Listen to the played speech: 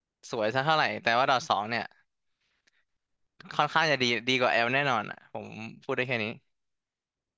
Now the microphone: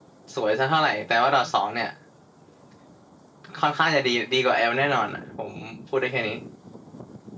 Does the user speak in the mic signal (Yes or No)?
No